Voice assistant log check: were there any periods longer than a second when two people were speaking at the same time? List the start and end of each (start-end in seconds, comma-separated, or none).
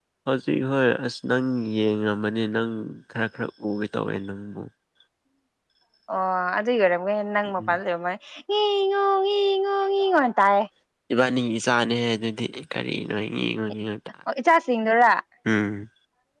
none